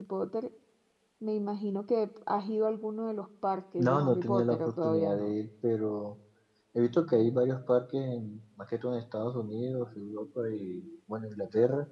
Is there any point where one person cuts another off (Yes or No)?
Yes